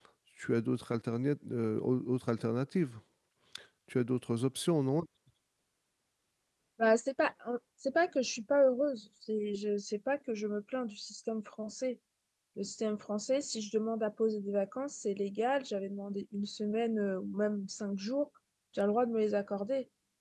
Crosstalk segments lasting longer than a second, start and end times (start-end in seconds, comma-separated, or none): none